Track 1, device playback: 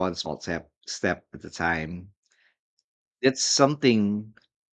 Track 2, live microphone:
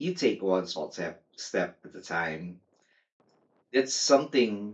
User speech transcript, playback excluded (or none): none